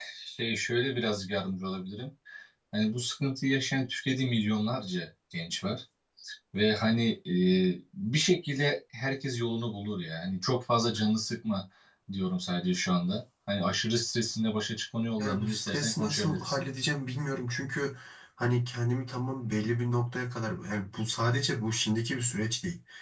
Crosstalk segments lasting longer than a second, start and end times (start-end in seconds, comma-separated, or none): 15.2-16.6